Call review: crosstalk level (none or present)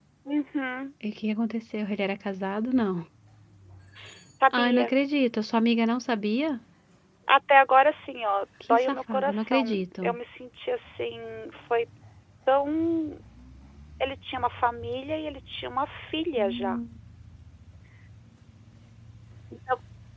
present